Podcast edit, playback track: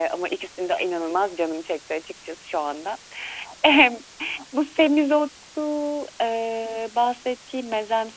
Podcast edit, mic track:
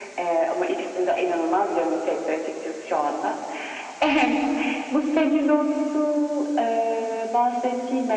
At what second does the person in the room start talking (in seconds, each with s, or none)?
none